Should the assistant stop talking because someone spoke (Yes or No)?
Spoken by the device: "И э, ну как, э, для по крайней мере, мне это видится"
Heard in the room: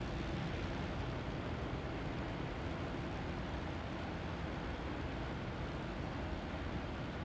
No